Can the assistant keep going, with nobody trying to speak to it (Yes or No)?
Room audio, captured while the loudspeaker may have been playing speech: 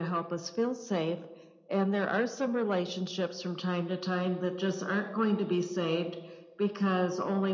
Yes